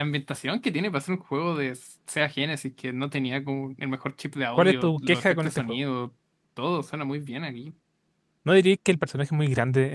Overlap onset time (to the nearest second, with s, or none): 5 s